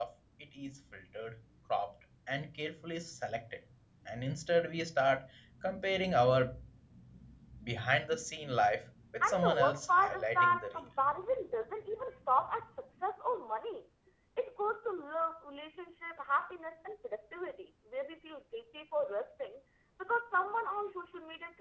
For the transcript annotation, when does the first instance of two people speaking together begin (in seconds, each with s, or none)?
9.2 s